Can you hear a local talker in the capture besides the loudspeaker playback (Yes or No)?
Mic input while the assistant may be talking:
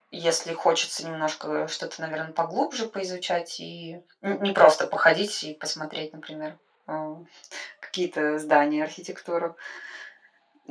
No